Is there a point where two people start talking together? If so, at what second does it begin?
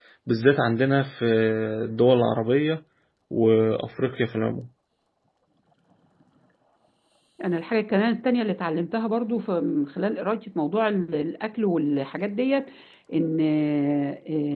none

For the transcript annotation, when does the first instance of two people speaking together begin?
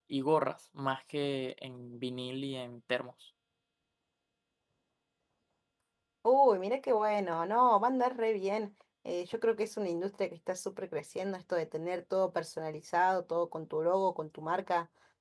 none

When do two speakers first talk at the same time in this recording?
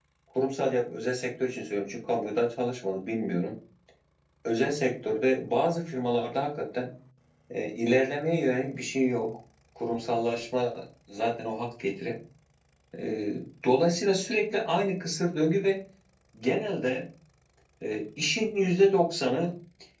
none

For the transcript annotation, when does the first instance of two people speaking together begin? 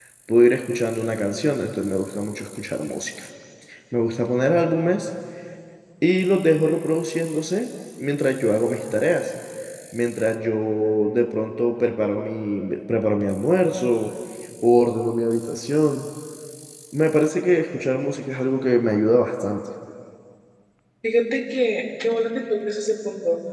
none

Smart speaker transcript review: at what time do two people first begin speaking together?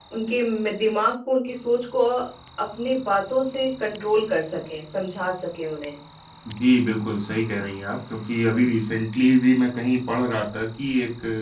none

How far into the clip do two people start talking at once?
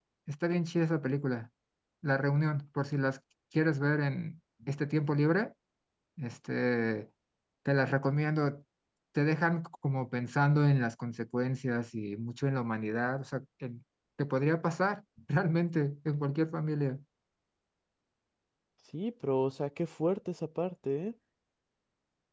none

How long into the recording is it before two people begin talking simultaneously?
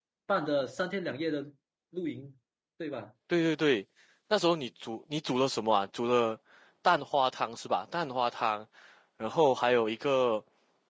none

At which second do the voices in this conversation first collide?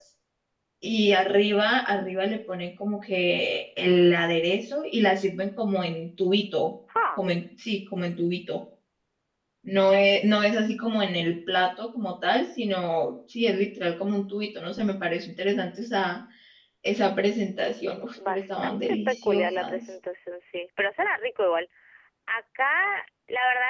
18 s

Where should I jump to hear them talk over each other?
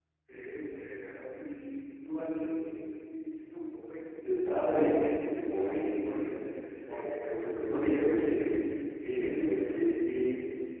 4 s

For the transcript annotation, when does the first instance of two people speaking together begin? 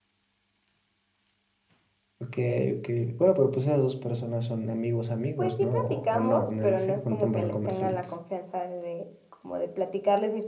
5 s

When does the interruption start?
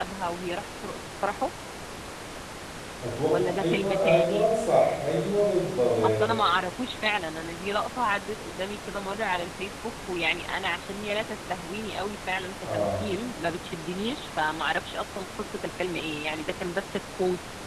3 s

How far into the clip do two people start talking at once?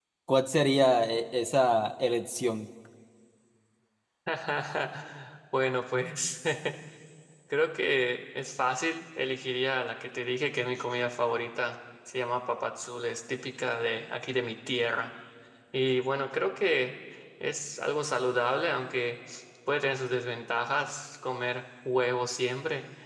none

